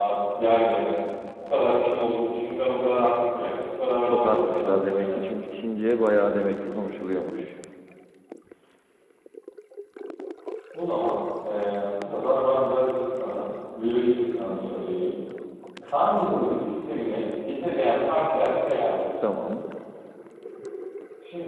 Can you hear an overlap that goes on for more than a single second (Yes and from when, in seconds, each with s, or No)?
Yes, from 4.0 s